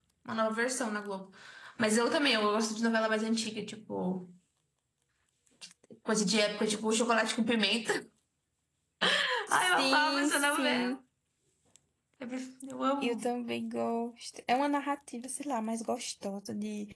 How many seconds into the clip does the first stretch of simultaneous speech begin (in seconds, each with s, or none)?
9.5 s